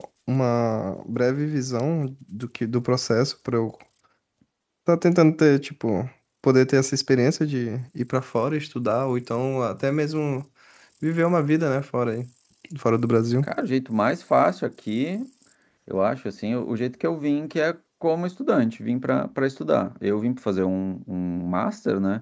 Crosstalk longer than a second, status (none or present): none